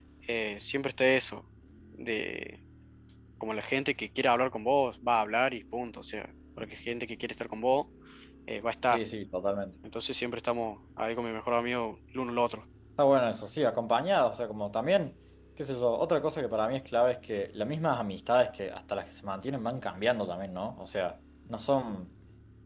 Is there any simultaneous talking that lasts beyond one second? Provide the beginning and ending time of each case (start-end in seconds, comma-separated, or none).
none